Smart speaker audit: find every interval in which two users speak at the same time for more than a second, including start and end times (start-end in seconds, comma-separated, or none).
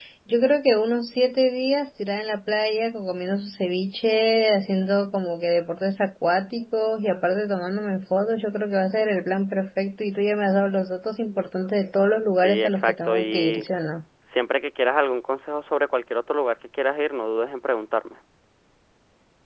12.4-13.7